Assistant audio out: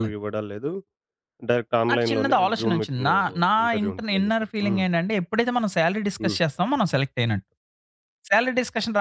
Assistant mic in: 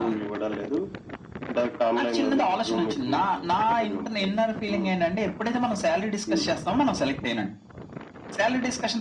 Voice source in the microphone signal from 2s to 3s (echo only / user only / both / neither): echo only